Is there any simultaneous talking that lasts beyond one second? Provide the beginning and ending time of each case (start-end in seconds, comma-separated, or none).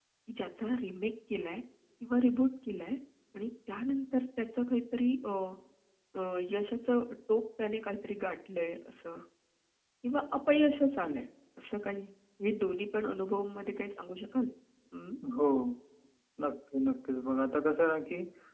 none